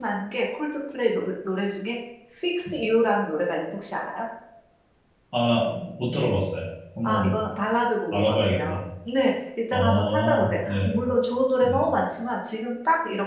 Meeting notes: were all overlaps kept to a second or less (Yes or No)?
No